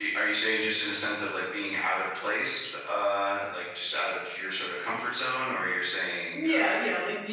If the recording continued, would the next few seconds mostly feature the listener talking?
Yes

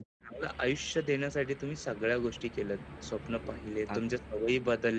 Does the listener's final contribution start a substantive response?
No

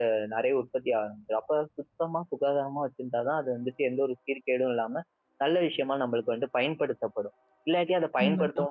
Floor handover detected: No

